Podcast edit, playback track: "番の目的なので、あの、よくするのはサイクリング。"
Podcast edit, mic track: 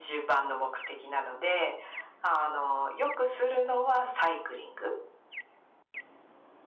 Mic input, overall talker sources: echo only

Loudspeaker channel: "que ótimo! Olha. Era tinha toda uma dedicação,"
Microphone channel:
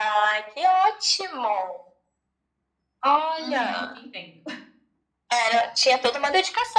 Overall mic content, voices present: both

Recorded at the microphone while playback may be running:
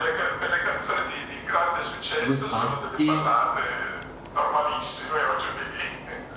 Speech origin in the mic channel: both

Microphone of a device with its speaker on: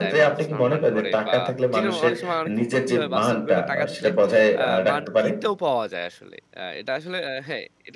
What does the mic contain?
both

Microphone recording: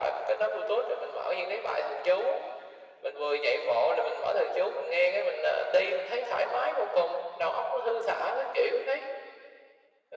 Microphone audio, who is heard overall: echo only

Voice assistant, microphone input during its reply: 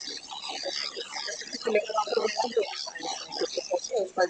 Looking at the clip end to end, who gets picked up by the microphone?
echo only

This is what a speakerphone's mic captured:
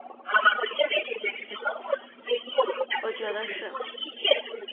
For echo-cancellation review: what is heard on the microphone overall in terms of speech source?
both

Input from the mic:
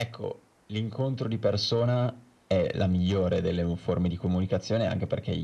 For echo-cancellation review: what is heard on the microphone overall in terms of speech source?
echo only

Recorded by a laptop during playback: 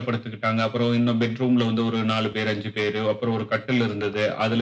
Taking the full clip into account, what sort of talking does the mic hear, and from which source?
echo only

